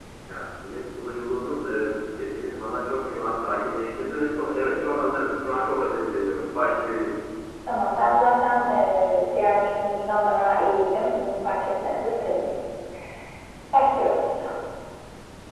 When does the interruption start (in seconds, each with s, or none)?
none